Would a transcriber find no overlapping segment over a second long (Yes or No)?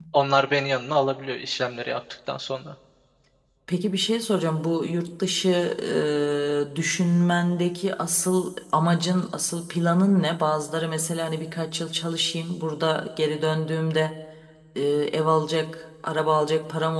Yes